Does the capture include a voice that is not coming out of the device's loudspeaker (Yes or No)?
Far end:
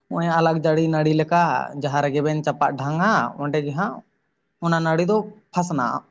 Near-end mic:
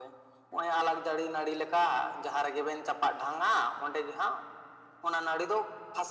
No